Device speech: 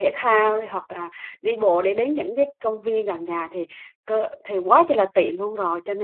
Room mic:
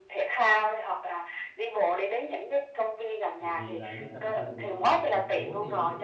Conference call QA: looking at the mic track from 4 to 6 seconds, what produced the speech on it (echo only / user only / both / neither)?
both